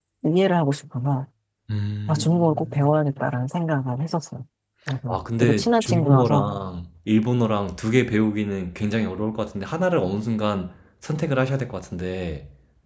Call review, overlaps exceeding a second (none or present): present